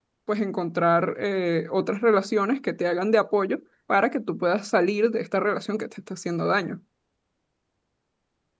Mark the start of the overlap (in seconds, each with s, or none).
none